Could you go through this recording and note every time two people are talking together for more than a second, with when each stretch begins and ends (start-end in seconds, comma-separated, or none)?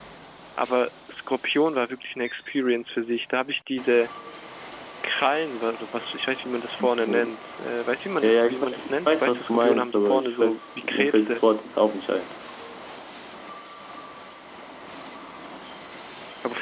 8.2-11.4